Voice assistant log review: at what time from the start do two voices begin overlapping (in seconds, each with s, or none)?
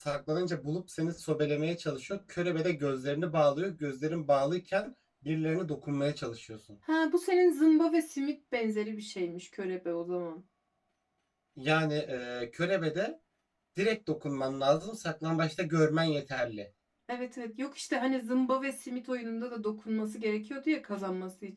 none